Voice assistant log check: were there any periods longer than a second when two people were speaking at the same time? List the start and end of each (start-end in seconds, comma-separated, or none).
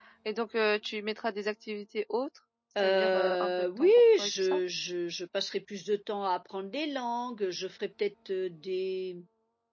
2.8-4.6